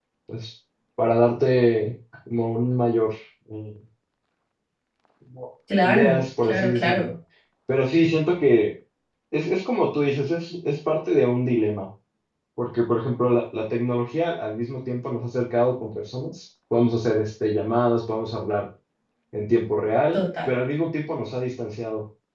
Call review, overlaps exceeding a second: present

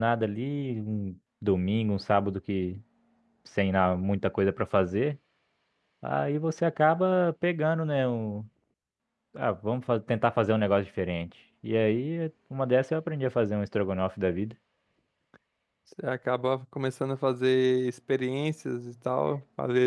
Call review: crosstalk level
none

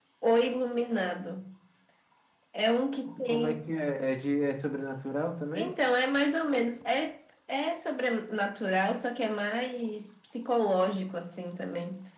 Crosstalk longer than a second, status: none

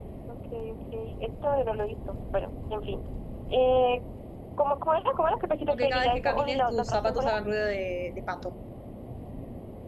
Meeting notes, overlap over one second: present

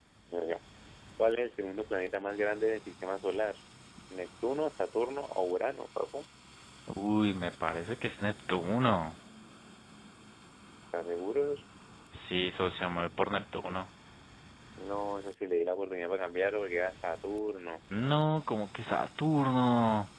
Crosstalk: none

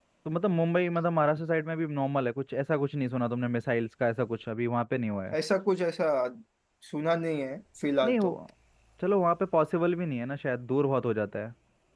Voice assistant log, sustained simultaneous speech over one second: none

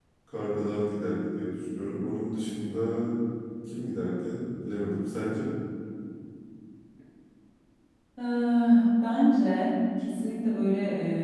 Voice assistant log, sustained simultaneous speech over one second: none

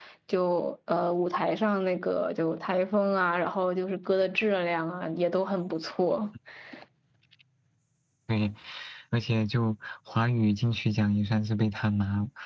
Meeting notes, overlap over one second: none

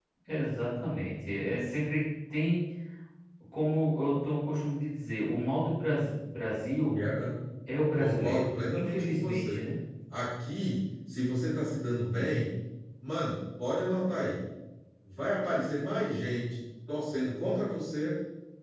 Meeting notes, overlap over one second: present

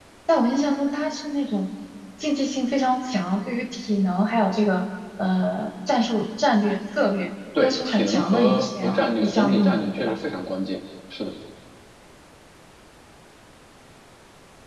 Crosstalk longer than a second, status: present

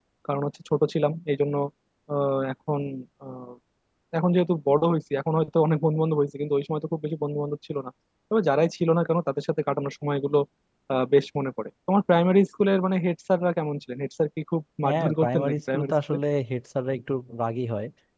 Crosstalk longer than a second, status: present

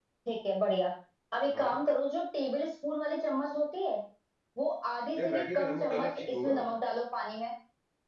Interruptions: present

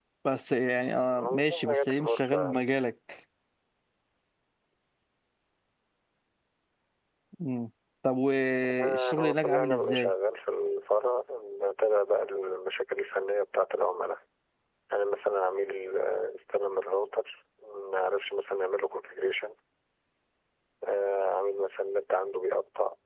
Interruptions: present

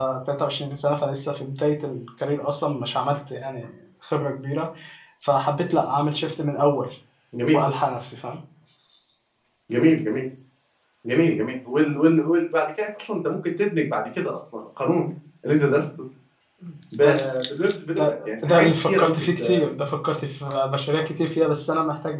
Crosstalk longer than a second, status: present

